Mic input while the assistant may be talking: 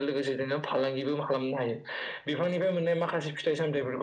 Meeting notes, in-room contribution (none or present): none